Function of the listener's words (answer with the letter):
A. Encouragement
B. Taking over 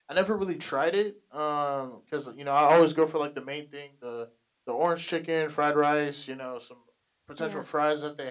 A